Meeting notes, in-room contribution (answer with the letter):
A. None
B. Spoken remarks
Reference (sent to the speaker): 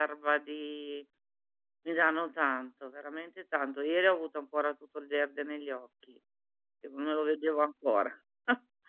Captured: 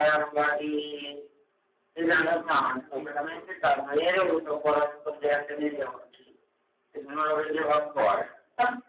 B